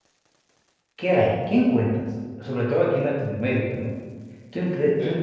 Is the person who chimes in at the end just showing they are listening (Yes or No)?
Yes